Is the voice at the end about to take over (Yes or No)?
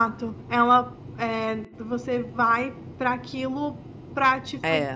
No